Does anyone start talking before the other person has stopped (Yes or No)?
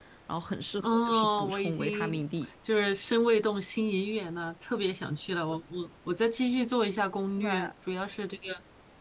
Yes